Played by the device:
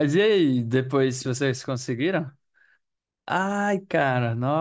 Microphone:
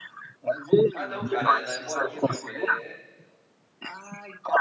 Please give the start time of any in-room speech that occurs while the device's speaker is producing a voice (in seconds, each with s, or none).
0.9 s